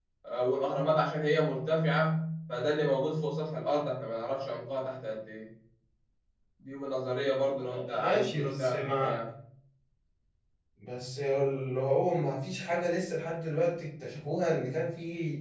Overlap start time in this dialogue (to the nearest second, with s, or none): 8 s